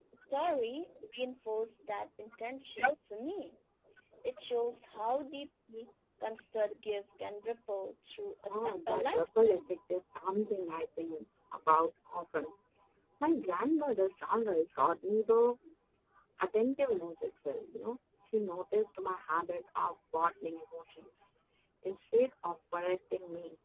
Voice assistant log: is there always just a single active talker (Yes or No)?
No